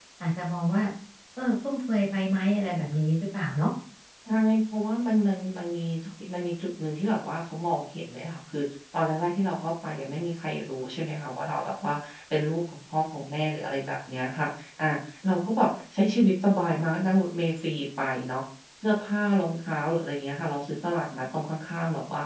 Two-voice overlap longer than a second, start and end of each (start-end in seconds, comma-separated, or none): none